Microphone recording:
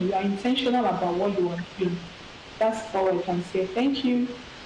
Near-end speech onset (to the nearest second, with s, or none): none